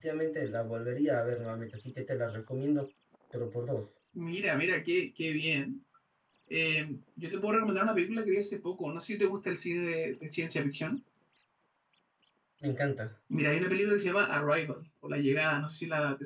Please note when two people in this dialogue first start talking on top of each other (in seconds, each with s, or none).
none